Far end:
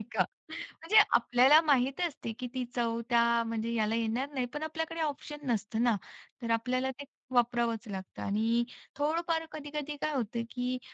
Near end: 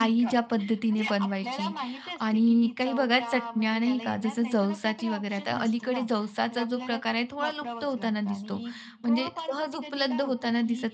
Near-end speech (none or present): present